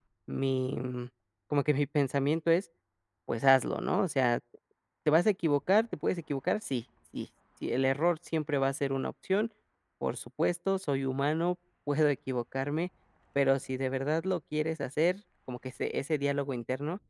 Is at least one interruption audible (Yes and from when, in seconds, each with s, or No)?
No